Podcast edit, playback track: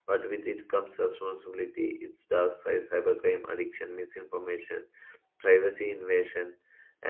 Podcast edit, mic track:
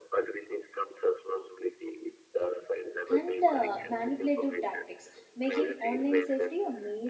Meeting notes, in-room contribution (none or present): present